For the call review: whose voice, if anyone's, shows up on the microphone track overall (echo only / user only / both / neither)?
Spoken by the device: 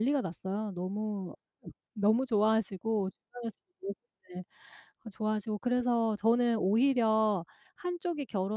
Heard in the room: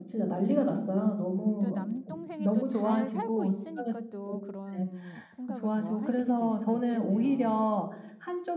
both